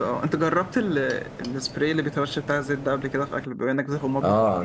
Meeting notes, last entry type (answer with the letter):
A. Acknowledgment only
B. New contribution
B